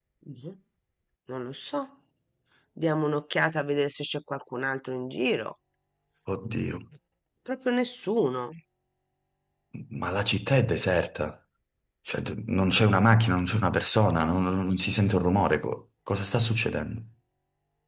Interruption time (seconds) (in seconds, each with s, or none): none